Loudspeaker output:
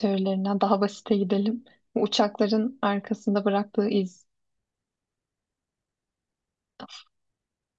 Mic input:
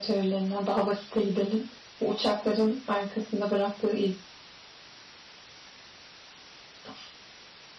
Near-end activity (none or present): none